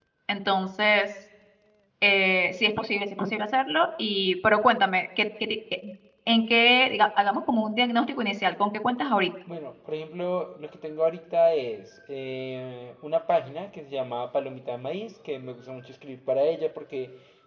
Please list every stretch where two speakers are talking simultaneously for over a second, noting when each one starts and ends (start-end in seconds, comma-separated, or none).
none